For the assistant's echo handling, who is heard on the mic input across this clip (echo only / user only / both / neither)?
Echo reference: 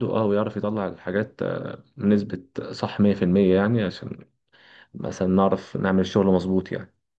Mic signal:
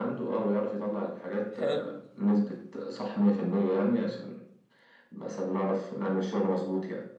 both